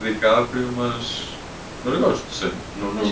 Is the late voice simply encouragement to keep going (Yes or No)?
Yes